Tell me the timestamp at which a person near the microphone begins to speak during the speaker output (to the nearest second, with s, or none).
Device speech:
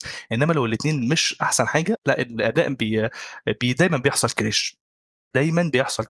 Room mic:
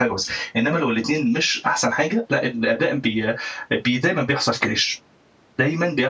none